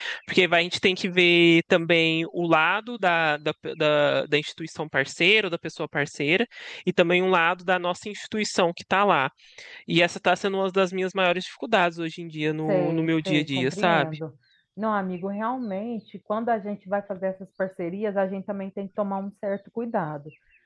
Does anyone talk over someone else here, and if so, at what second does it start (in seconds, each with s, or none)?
12.7 s